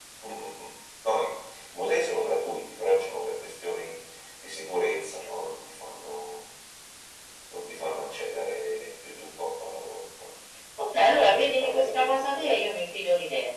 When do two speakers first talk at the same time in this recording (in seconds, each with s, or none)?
10.9 s